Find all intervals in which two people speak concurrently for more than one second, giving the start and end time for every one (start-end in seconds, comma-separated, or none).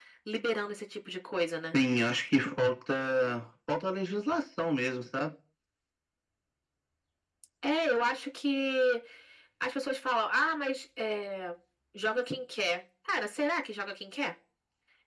none